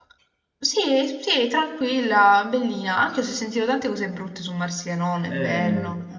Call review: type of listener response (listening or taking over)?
taking over